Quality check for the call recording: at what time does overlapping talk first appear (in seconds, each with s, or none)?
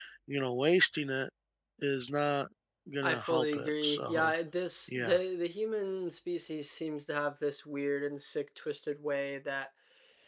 3.0 s